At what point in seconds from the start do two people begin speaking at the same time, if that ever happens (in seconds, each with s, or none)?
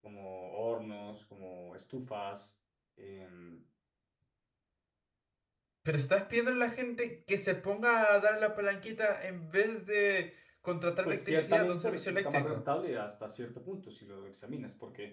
11.1 s